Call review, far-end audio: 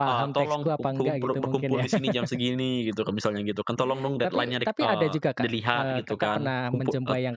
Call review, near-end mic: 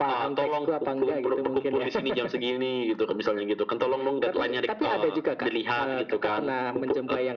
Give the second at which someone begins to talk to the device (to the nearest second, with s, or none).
none